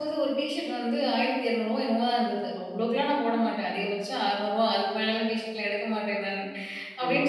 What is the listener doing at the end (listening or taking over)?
listening